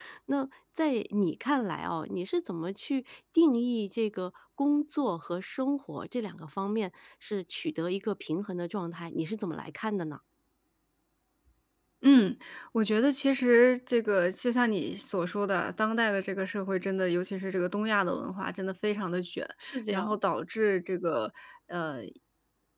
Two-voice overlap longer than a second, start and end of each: none

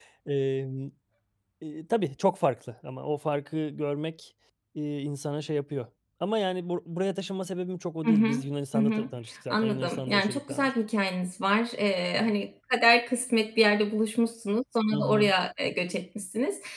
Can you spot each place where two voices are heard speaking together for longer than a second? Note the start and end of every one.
9.5-10.7

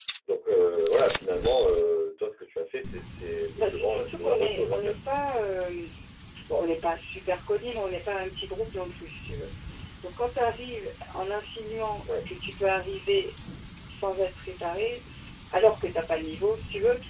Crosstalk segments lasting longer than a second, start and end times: 3.6-4.9

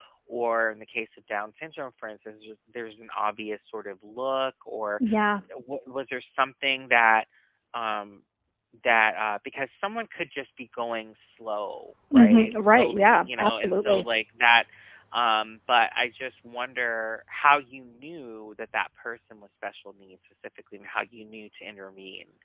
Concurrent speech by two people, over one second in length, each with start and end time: 12.1-14.0

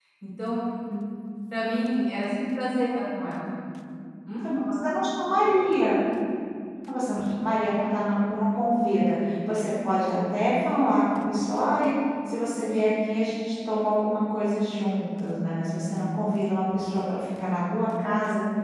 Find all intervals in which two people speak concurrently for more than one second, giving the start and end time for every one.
none

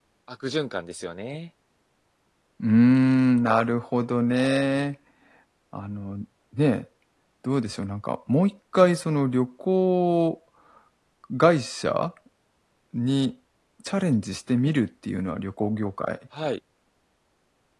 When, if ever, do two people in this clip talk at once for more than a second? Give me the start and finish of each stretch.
none

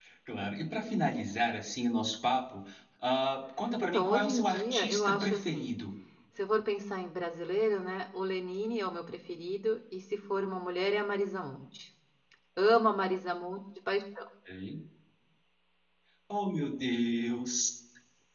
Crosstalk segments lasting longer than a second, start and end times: 3.8-5.7

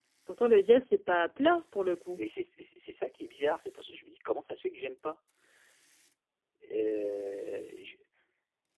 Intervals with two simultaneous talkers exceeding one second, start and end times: none

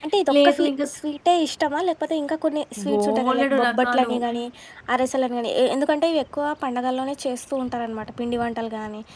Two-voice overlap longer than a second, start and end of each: 2.9-4.1

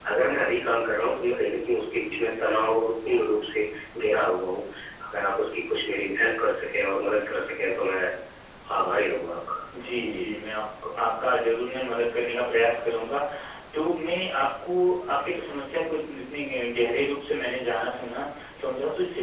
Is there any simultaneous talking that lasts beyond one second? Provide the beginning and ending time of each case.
none

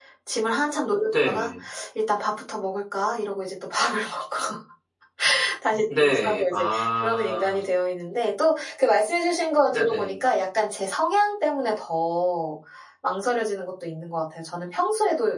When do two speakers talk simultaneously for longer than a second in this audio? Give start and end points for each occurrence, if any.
6.0-7.6

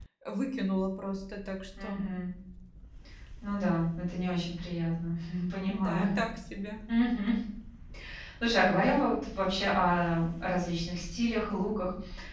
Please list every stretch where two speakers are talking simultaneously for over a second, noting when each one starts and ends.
none

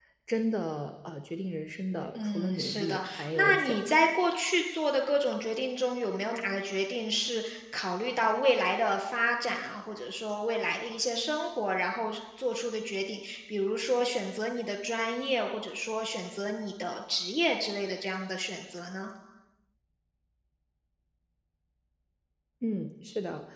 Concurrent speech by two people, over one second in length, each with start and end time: 2.1-4.0

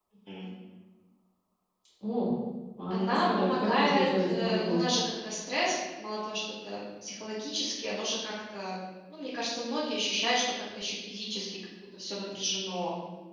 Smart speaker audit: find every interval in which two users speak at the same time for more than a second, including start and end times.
2.9-4.8

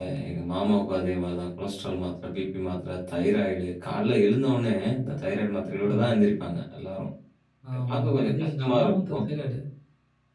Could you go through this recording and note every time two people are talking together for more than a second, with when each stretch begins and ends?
7.9-9.2

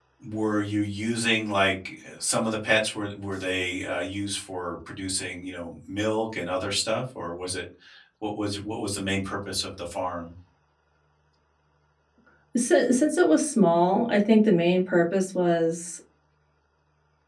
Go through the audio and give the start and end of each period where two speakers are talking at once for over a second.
none

